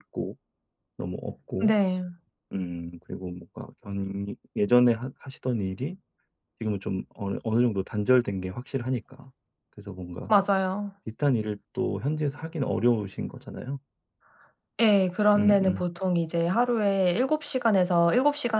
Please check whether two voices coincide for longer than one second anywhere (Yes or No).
No